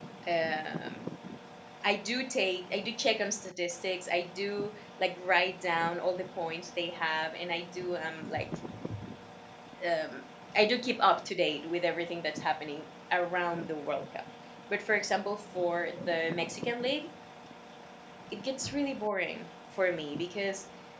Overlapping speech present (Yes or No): No